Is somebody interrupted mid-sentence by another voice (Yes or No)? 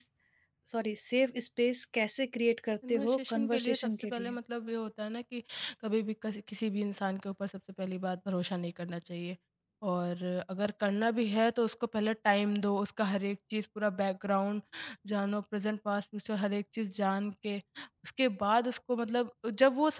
Yes